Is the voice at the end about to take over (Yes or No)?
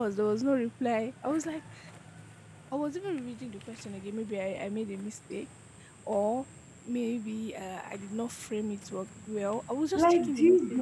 Yes